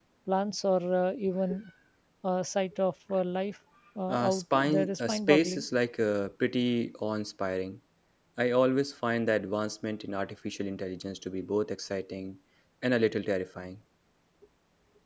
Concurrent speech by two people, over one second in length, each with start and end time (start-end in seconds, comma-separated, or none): 4.1-5.6